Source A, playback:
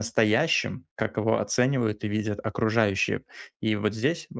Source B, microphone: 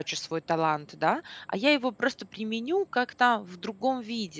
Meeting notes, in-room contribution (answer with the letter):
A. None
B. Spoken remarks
B